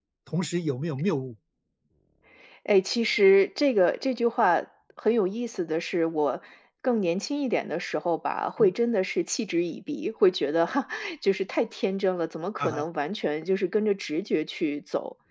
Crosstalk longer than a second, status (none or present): none